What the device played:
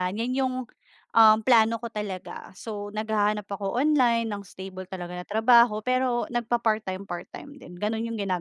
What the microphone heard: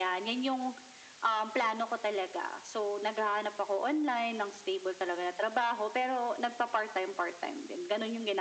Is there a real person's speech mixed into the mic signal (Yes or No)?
No